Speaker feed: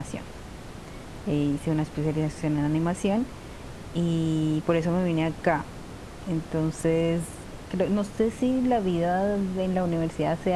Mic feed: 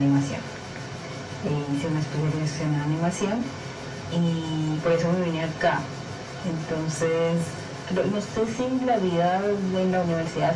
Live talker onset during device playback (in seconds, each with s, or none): none